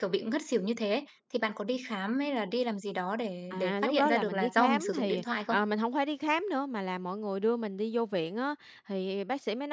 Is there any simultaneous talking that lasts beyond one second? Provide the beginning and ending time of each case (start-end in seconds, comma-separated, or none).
3.5-5.6